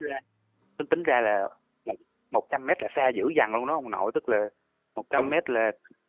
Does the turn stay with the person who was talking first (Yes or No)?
Yes